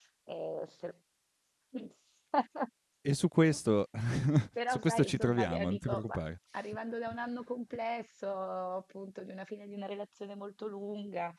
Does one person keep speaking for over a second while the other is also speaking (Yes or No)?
Yes